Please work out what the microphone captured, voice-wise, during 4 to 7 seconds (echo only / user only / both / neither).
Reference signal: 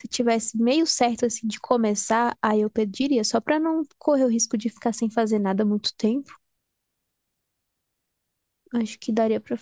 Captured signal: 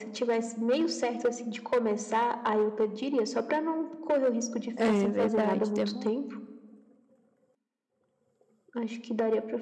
both